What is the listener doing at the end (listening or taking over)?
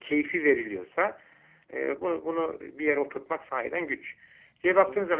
listening